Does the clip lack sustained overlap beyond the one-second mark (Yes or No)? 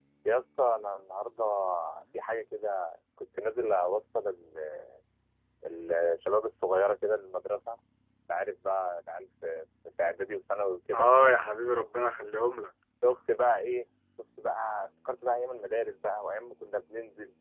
Yes